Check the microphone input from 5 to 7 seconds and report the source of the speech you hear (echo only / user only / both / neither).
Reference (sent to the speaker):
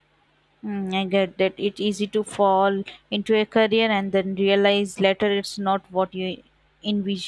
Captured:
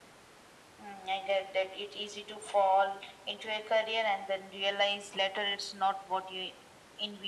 echo only